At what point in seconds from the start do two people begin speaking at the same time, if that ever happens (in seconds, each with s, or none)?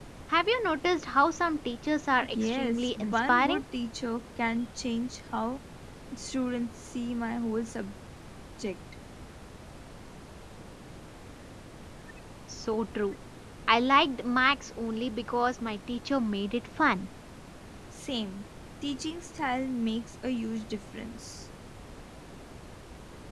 2.3 s